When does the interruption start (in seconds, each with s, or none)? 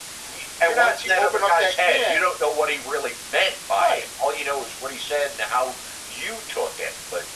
0.6 s